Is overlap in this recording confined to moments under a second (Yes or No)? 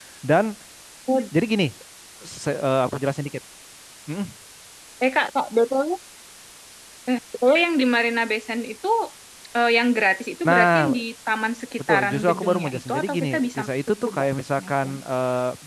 No